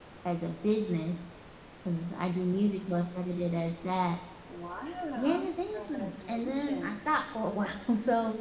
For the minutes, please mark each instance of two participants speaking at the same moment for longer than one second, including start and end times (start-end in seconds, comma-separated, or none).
5.7-7.1